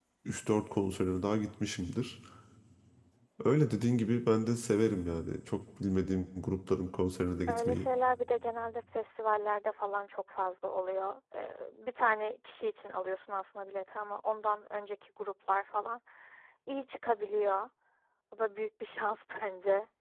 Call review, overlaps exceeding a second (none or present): none